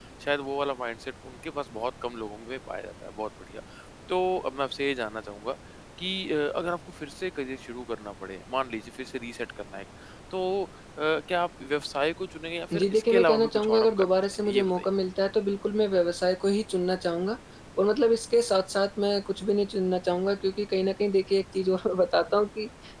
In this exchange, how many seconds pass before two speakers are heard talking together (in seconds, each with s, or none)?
12.7 s